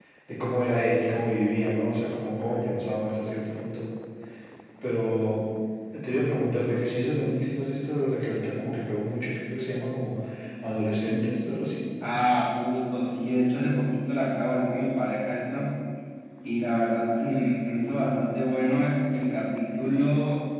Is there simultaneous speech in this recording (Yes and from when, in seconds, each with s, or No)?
No